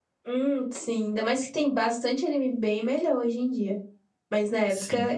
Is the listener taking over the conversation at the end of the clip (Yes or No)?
No